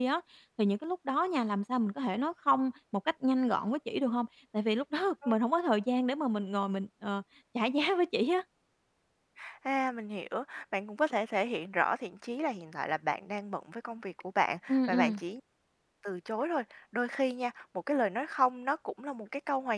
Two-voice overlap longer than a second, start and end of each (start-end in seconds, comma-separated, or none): none